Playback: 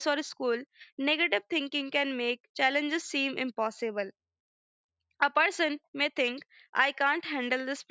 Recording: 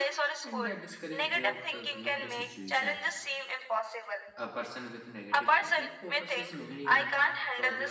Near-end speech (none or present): present